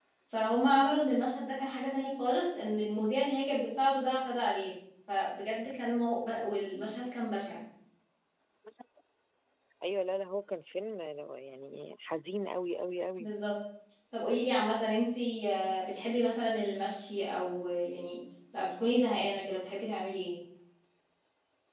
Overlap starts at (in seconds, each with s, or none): none